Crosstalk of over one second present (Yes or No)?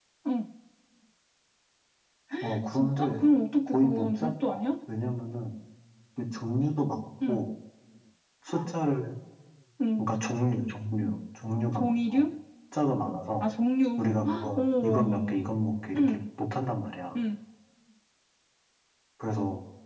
Yes